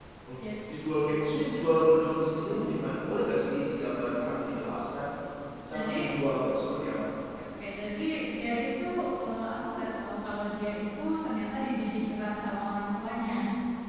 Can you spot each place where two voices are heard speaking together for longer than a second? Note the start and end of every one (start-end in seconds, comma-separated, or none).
none